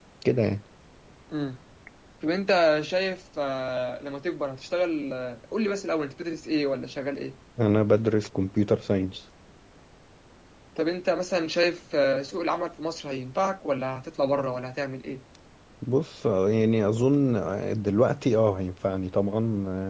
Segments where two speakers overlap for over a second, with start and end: none

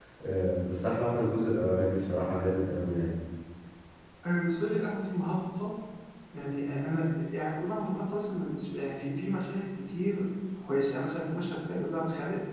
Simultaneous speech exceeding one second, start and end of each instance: none

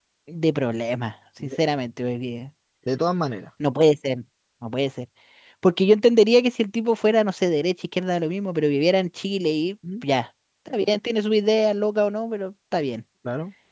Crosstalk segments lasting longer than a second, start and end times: none

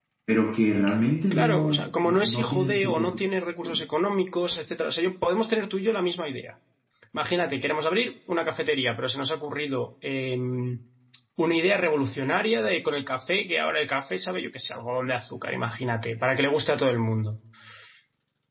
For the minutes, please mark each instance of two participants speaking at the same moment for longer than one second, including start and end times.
1.3-3.2

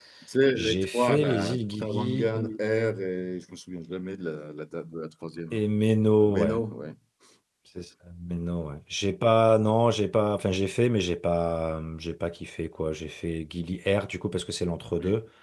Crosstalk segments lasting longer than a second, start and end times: 0.6-2.6

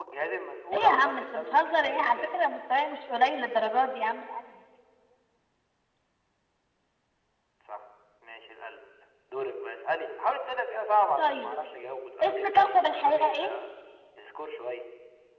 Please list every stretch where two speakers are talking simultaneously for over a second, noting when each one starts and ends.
0.7-2.4, 12.2-13.5

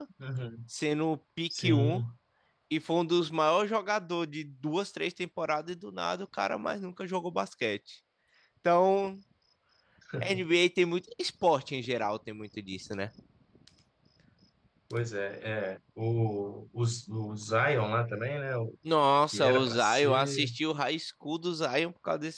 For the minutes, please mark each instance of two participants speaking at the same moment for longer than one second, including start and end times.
19.2-20.5

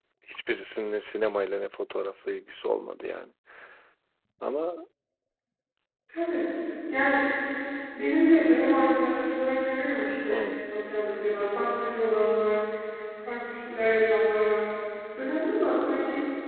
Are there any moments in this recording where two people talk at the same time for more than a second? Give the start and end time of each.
none

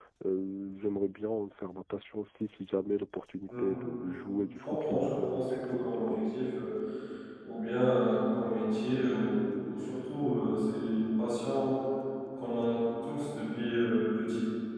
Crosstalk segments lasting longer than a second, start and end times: 4.6-6.2

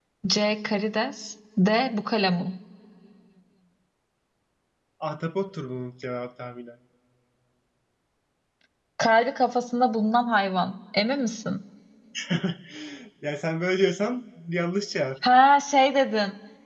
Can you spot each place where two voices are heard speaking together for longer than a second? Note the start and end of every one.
none

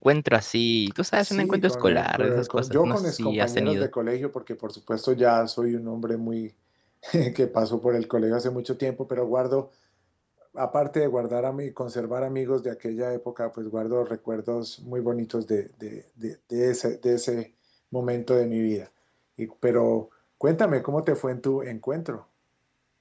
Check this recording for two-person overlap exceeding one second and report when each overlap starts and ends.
1.2-3.9

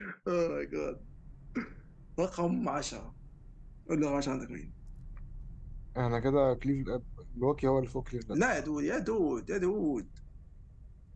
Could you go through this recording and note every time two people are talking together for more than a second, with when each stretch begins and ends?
none

